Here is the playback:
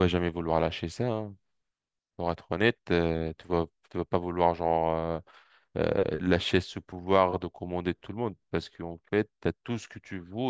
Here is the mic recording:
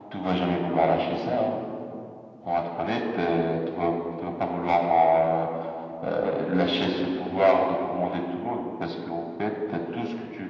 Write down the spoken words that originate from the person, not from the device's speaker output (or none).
none